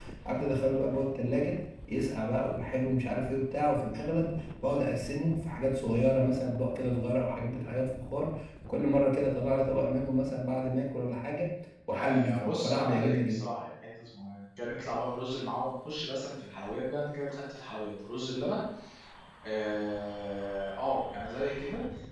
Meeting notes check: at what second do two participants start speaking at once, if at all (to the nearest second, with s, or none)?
12 s